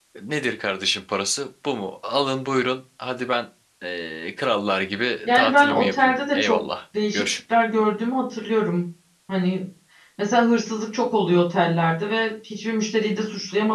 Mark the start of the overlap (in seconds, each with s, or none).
5.2 s